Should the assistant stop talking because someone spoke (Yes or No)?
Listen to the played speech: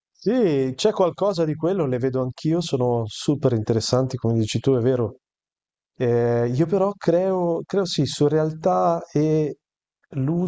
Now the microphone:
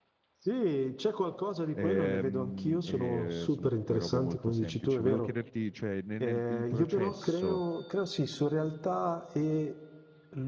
Yes